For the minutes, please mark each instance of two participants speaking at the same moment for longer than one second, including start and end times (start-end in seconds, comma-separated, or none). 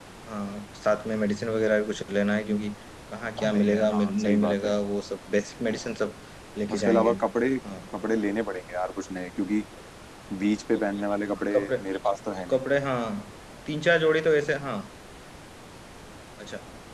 3.4-4.7